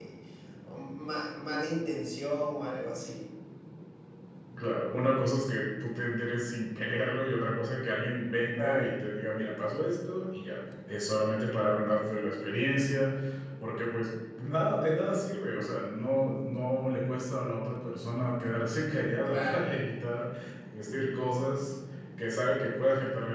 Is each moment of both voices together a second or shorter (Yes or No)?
Yes